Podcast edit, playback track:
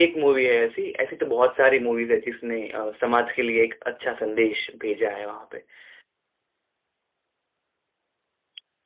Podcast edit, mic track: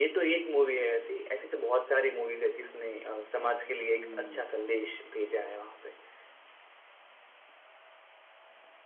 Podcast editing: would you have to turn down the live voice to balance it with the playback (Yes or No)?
No